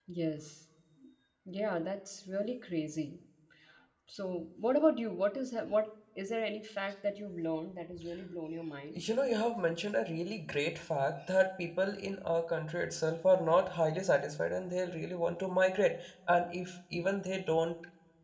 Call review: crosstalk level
none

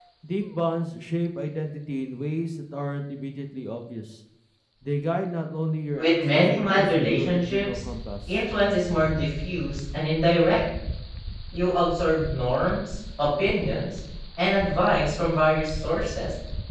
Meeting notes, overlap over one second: present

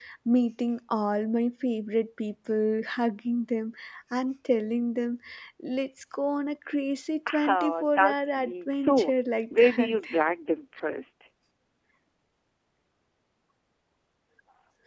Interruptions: present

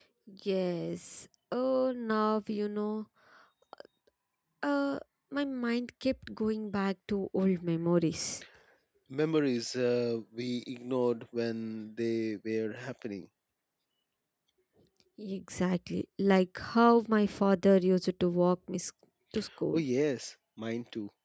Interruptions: none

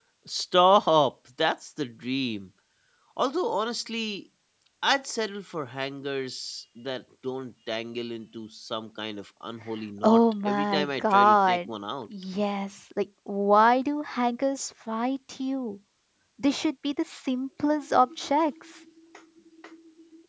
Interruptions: present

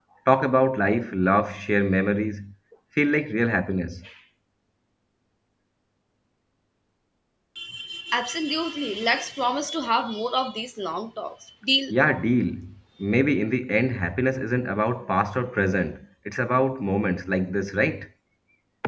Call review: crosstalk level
none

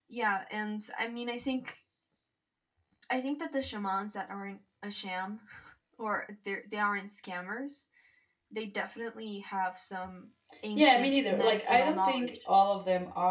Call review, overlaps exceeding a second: present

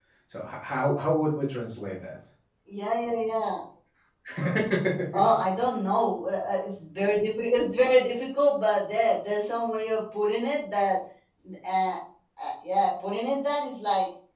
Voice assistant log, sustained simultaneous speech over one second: none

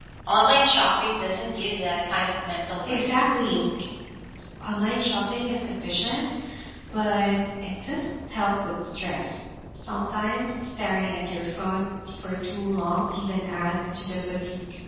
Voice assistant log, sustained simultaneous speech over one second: none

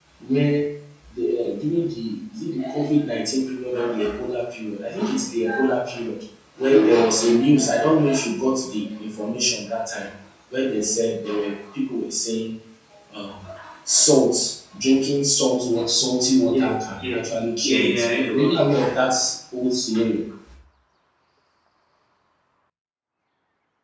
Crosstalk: present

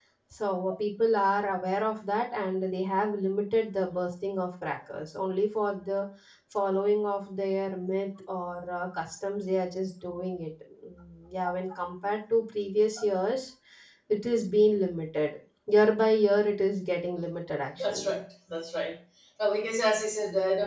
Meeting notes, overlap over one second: none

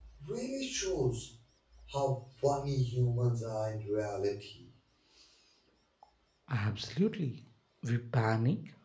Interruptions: none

